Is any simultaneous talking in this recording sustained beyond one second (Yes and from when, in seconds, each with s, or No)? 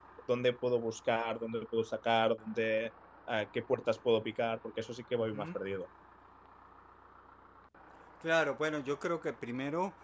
No